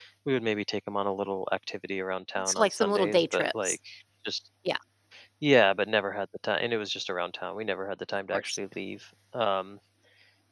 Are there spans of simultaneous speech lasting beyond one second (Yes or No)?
Yes